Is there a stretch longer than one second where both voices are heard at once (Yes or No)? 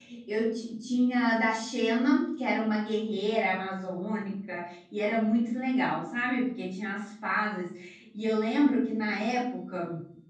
No